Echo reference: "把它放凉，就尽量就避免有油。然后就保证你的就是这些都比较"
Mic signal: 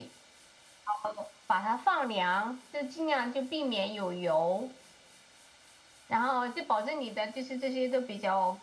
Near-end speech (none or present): none